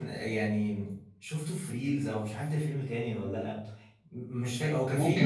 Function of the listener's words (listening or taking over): listening